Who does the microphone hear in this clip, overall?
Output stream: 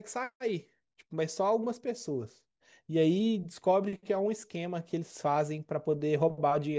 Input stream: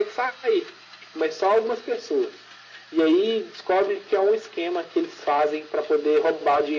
echo only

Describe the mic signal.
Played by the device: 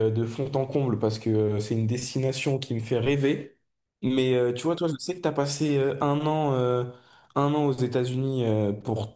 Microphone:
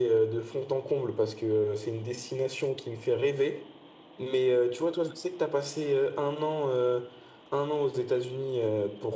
echo only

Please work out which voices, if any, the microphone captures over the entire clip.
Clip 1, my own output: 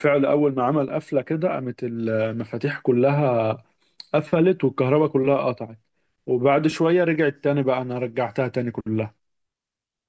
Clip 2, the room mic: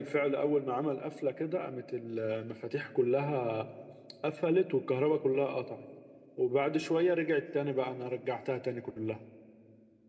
echo only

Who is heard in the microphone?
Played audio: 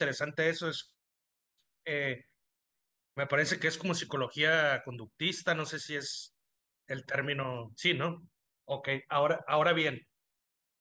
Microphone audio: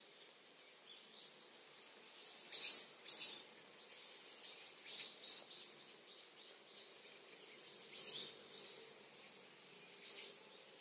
neither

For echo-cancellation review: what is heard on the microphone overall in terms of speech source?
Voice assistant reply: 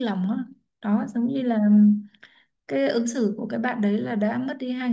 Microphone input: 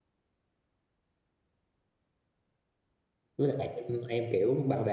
user only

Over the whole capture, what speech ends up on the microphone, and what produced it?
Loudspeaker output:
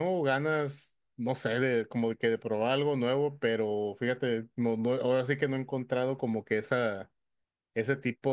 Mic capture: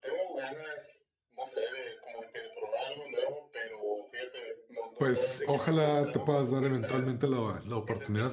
both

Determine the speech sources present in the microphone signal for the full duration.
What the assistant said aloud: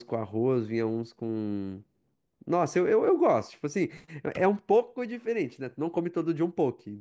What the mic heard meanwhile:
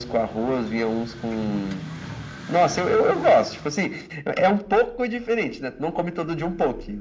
echo only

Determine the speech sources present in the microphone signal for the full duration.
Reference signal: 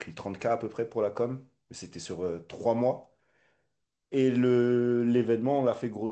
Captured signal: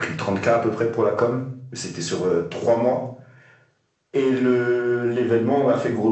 echo only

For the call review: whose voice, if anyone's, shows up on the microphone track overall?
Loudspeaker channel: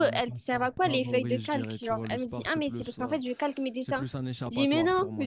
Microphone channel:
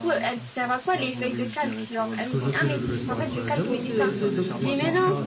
both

